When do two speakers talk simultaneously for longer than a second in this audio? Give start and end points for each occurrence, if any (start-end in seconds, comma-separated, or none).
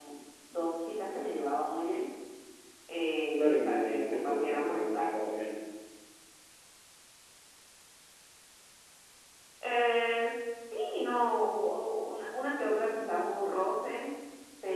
3.4-5.5